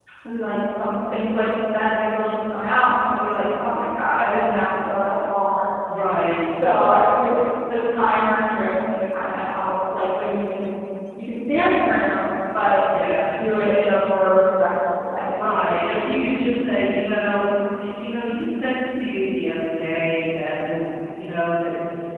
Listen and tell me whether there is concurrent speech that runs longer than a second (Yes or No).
No